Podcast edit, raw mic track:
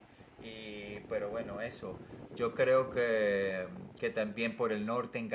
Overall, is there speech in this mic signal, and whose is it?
echo only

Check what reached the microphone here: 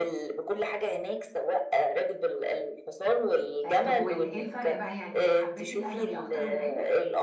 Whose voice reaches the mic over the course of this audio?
both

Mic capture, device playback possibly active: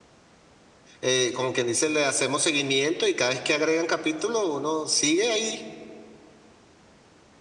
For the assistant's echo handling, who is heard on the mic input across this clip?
user only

